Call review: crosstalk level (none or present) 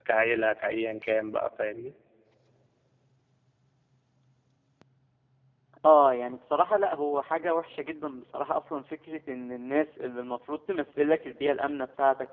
none